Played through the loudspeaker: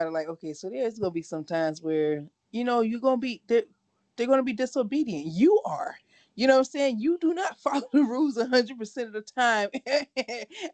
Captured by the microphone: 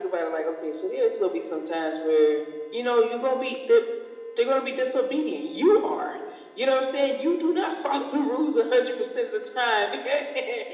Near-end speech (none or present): none